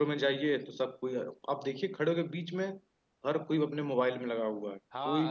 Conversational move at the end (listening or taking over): taking over